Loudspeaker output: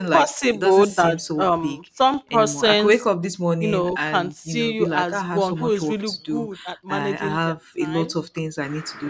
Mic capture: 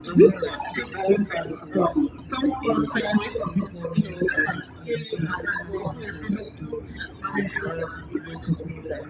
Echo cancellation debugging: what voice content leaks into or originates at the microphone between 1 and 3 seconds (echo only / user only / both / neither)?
echo only